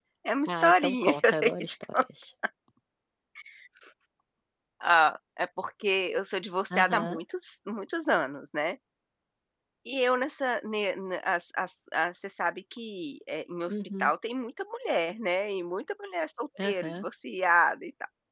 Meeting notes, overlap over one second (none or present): present